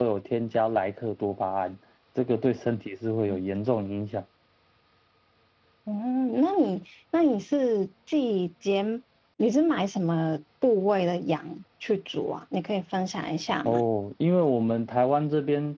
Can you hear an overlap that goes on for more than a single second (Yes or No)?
No